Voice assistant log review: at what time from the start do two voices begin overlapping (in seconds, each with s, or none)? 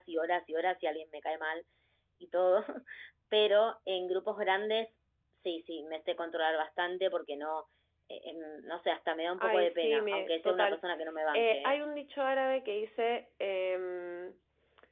9.4 s